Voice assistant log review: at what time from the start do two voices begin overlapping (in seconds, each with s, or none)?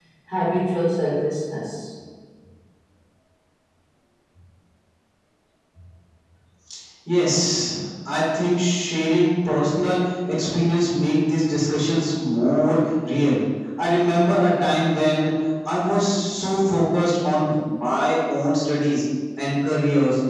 none